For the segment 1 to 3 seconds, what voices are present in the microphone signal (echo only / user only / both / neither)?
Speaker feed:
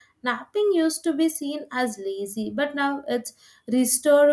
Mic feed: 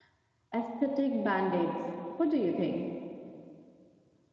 user only